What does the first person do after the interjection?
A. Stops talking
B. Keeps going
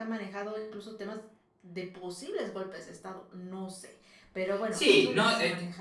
A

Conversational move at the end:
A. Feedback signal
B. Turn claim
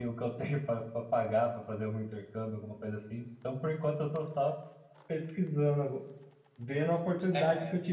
A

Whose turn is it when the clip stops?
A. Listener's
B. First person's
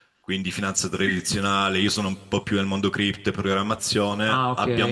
B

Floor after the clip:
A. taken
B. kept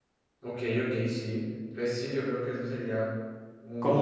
A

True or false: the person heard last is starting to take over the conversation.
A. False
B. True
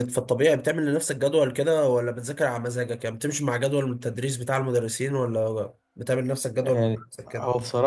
B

